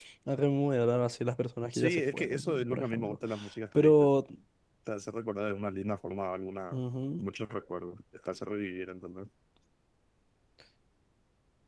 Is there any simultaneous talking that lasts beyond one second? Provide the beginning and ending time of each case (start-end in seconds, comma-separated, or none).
1.7-3.2